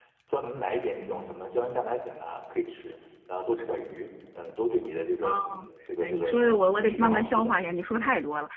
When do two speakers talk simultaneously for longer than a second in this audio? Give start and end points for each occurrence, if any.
6.0-7.5

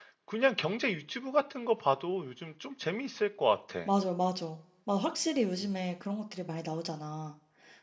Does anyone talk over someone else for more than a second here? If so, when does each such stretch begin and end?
none

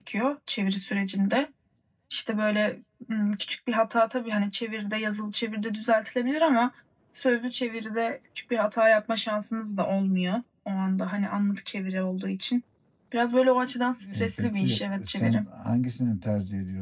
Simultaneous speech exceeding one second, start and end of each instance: 14.1-15.4

